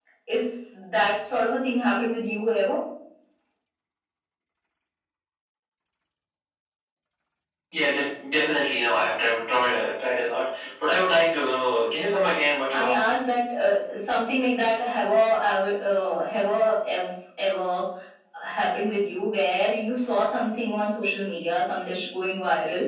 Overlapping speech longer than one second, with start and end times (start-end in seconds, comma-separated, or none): none